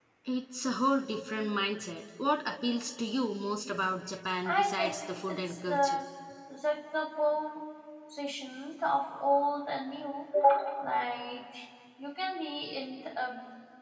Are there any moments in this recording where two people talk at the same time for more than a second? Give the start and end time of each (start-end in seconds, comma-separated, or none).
4.5-6.0